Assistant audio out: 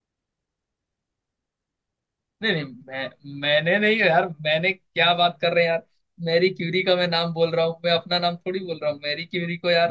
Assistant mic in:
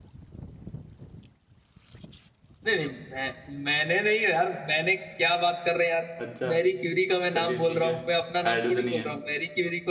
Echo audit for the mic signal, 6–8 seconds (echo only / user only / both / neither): both